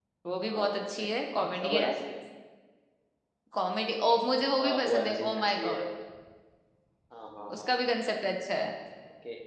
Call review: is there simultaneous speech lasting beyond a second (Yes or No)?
Yes